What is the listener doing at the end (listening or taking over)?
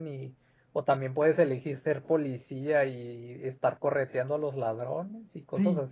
taking over